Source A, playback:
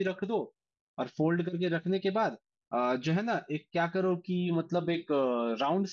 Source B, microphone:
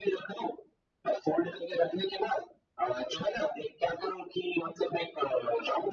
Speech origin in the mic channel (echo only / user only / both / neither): echo only